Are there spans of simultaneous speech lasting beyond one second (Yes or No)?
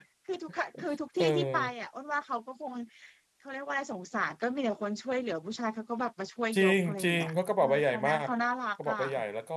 Yes